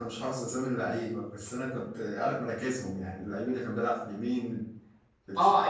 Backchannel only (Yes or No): No